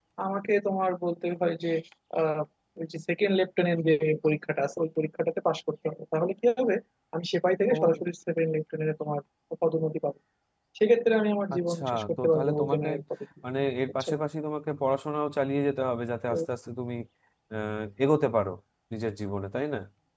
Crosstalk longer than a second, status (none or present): present